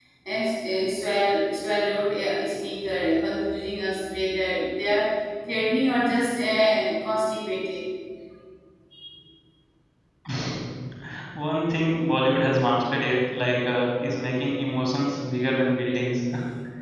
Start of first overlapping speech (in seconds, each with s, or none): none